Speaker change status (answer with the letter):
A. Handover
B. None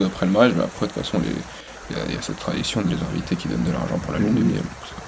A